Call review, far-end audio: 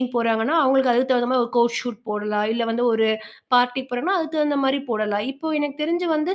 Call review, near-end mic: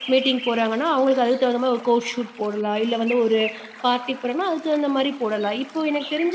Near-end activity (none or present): none